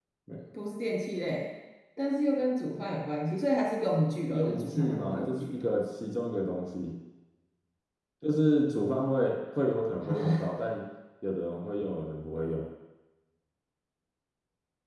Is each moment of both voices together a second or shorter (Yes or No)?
No